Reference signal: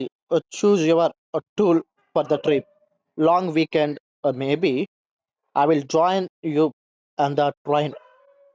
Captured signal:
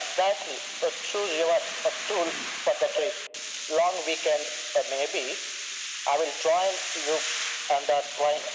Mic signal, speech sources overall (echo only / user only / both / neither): echo only